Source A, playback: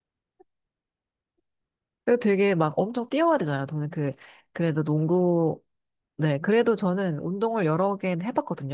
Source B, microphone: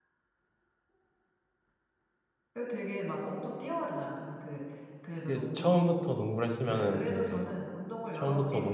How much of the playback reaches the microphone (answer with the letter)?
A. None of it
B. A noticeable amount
B